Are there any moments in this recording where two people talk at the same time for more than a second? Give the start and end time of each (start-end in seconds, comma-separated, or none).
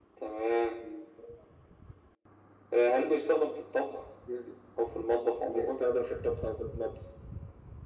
none